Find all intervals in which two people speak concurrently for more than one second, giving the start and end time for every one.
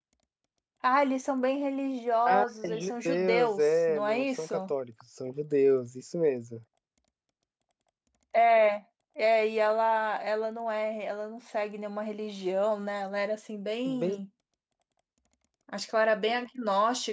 2.2-4.5

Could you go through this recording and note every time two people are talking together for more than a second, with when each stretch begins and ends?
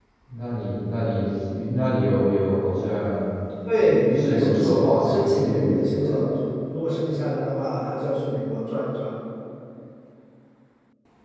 4.1-6.3

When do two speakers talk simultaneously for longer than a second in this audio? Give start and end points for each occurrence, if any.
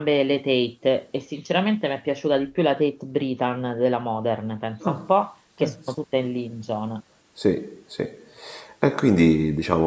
none

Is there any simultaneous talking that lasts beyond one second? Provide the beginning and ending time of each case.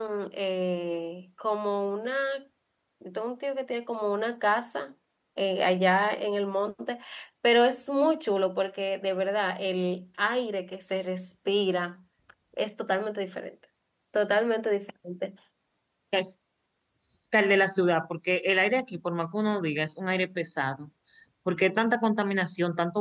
none

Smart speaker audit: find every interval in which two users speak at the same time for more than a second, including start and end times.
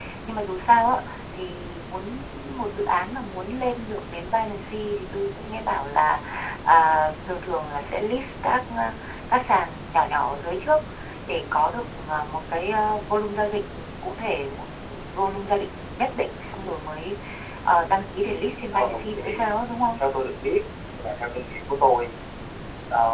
18.2-19.6

